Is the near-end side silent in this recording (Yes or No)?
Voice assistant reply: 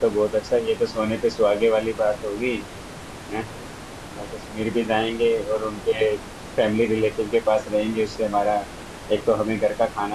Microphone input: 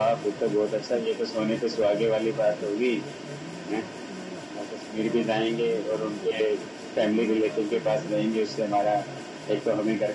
No